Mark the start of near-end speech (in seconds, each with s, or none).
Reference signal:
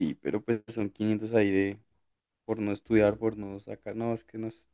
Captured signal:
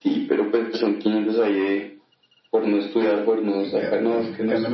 3.6 s